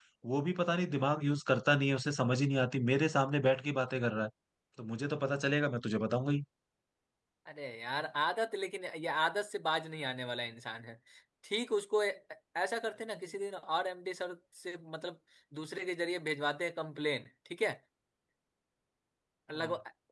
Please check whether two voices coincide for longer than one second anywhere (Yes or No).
No